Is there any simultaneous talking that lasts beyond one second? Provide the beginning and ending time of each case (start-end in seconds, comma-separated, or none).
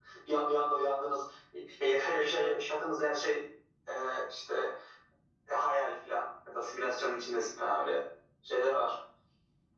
none